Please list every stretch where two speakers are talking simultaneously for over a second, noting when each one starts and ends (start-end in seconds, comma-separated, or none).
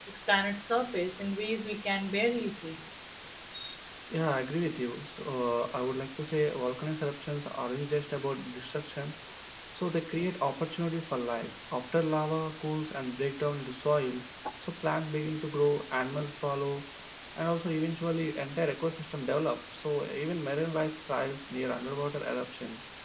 none